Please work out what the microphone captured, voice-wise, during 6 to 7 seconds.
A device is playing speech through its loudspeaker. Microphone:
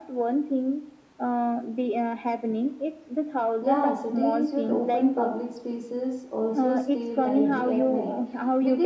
both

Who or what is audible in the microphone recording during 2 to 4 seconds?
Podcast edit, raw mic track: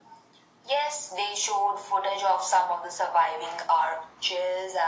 echo only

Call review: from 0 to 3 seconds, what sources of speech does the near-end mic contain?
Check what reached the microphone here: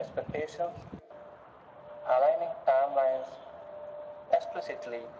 echo only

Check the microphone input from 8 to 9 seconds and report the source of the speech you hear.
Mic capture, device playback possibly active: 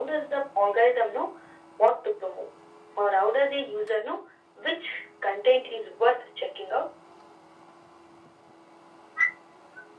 neither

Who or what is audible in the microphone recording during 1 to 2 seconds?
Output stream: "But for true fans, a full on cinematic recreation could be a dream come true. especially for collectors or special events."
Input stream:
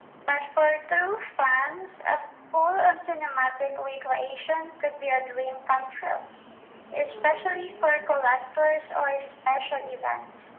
echo only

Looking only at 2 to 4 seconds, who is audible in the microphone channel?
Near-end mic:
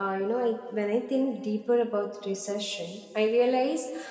user only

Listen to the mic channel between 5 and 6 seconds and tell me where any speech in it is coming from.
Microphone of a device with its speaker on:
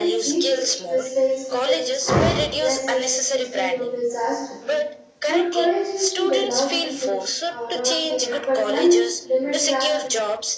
both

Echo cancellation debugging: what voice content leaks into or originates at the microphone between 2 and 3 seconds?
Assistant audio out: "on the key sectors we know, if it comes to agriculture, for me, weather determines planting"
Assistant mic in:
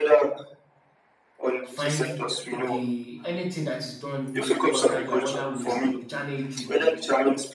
both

